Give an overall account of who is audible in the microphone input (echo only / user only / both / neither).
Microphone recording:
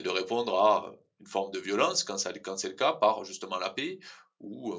user only